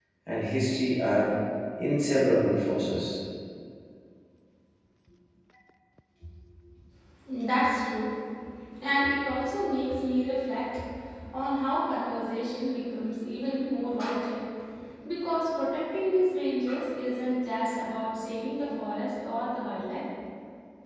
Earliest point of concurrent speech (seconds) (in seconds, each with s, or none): none